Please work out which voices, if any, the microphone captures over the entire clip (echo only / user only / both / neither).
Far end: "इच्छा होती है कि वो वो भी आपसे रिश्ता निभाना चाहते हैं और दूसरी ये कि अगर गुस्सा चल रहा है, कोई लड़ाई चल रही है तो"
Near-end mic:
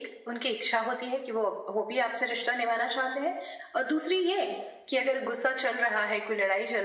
echo only